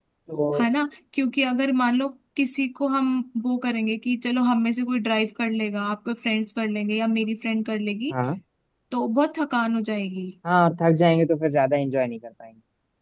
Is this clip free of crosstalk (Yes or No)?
Yes